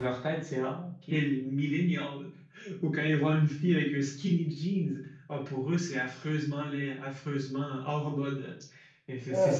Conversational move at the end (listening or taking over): listening